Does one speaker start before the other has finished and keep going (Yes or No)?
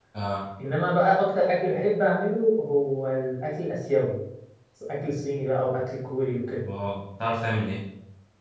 No